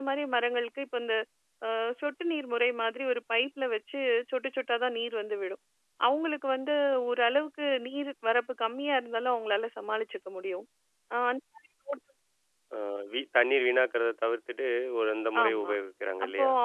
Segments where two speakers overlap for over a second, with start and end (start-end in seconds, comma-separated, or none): none